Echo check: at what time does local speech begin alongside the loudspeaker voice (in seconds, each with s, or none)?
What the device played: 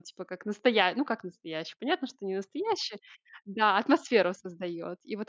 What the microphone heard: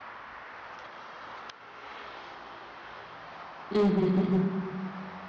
3.7 s